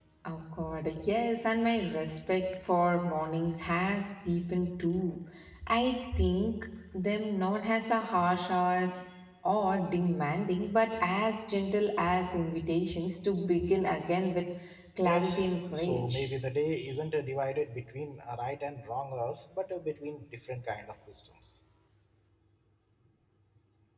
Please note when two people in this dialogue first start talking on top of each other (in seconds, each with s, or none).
15.0 s